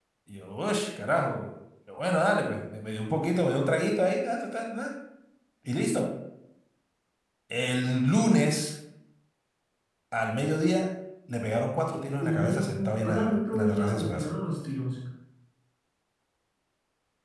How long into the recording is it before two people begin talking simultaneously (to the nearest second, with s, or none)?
12 s